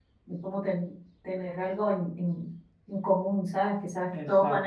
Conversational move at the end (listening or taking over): listening